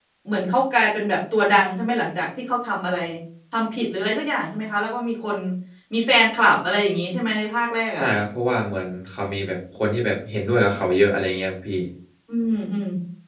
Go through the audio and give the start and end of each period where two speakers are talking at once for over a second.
none

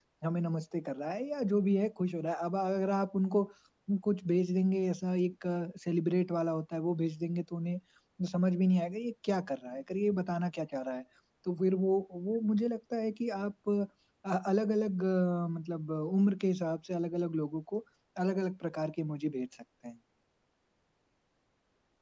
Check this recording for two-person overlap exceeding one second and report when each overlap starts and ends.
none

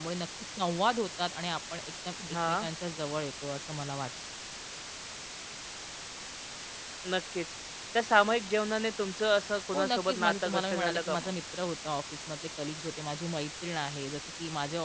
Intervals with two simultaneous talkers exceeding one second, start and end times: 9.7-11.3

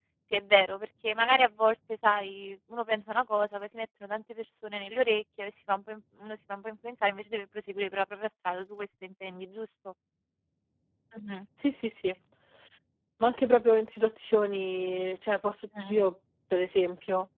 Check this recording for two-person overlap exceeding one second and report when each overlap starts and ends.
none

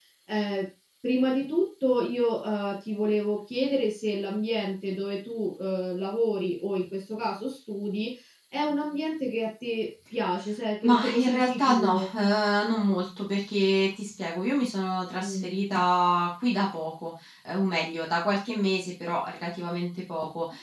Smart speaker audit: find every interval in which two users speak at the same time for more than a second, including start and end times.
10.8-12.1

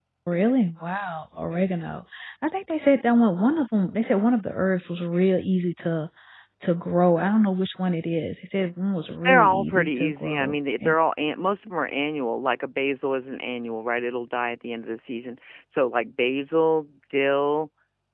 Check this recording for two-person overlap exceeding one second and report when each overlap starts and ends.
9.2-11.0

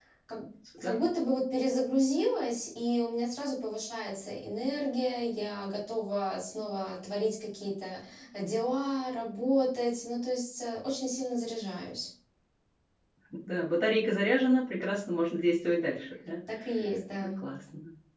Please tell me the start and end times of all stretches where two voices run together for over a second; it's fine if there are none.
none

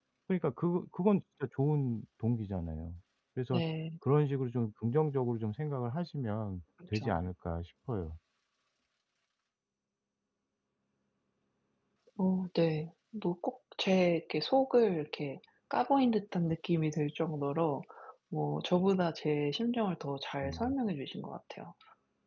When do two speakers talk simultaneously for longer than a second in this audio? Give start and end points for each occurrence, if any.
none

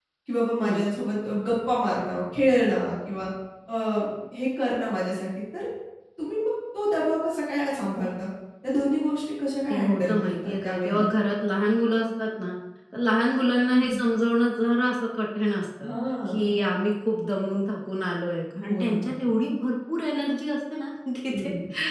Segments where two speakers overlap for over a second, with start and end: 9.7-11.1

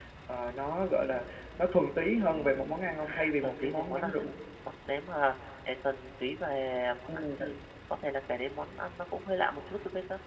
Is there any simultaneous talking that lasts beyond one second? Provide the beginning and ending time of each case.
3.0-4.2

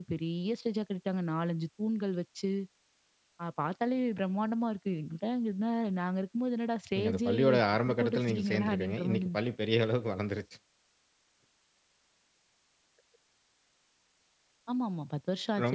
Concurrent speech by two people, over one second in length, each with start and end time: 7.0-9.4

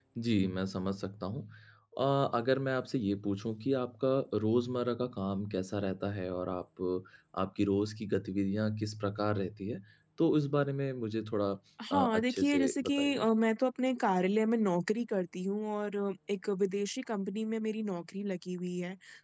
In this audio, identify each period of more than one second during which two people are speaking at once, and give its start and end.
11.9-13.3

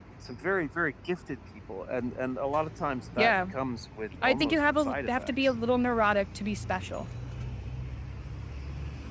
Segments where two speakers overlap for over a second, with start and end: 4.2-5.5

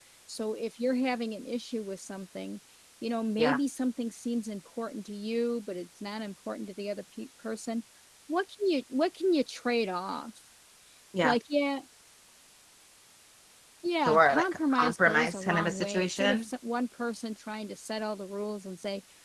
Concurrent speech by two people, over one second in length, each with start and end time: 14.1-16.4

